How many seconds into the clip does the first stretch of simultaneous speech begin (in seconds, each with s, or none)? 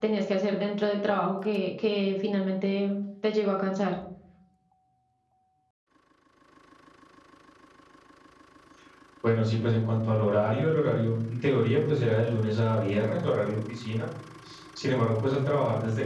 none